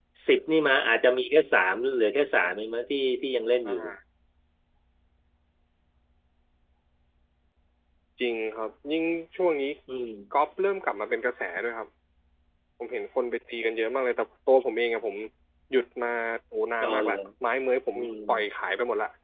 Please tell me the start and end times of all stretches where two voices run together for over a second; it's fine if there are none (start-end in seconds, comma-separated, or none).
none